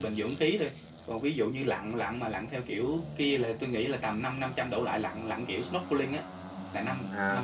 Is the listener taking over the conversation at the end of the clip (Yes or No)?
Yes